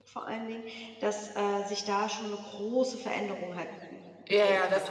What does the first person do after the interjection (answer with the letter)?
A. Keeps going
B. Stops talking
B